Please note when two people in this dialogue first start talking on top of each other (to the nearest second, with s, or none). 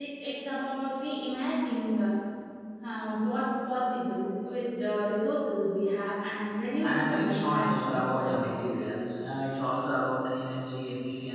7 s